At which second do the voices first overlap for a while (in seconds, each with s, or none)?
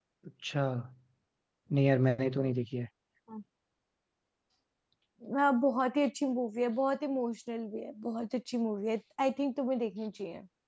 none